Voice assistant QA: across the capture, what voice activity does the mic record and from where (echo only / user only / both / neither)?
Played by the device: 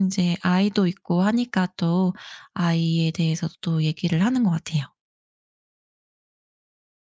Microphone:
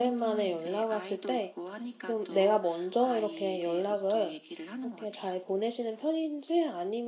both